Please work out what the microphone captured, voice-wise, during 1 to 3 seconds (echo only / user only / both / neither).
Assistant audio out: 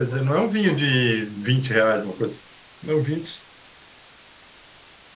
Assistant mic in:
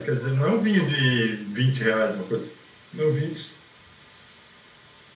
echo only